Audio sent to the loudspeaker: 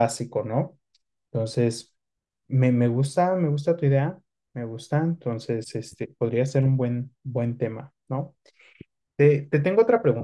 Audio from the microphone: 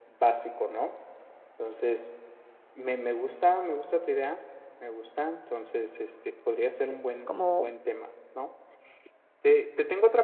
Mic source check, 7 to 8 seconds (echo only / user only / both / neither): both